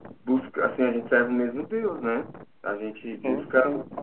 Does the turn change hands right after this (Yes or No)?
No